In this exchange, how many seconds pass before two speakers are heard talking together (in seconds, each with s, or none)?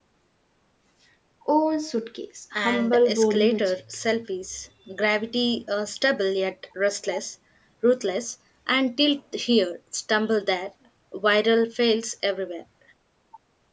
2.5 s